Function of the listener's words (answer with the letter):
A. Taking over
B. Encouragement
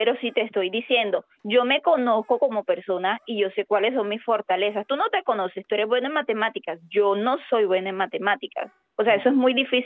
B